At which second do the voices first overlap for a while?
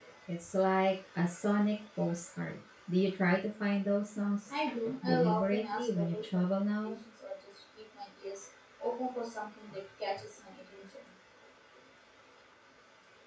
5.0 s

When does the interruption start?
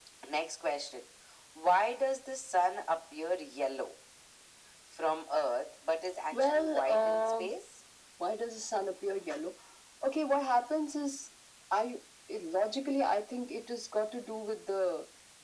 6.3 s

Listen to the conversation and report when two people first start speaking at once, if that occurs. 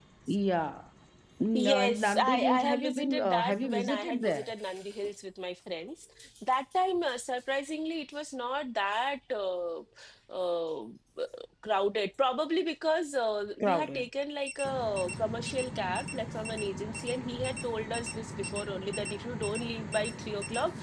1.5 s

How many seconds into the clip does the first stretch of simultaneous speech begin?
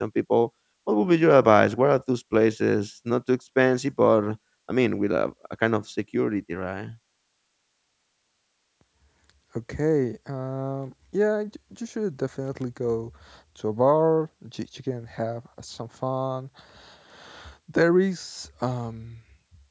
none

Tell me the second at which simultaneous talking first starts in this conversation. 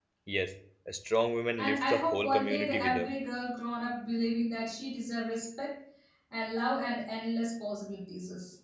1.6 s

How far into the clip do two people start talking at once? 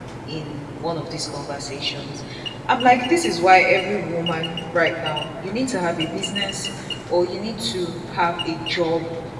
none

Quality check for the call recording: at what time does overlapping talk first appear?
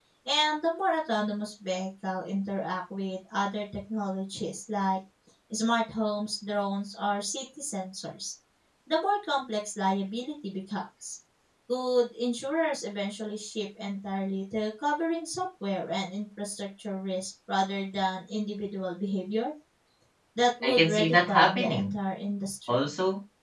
20.6 s

